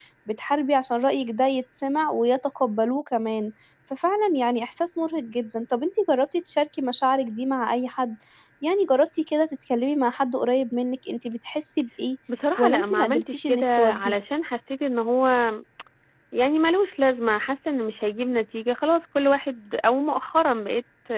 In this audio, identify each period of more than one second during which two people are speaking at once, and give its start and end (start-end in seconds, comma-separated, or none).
12.6-14.1